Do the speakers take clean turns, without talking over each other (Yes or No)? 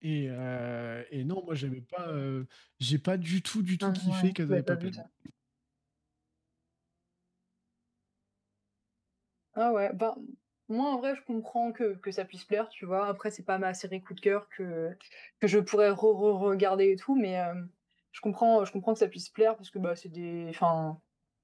No